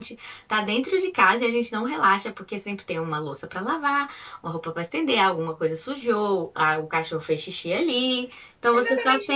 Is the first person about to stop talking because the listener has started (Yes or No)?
Yes